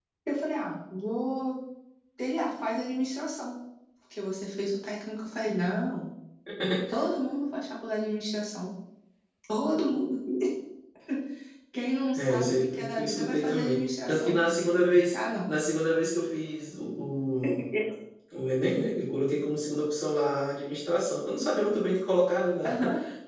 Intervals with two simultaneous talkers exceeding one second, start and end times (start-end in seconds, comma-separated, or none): 12.1-14.4